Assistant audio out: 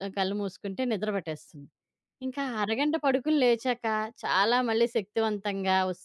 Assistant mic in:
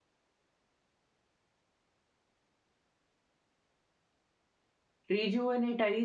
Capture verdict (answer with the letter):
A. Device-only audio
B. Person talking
B